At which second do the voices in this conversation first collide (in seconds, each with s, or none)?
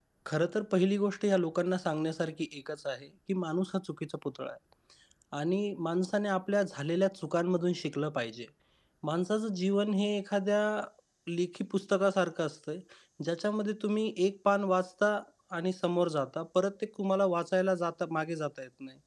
none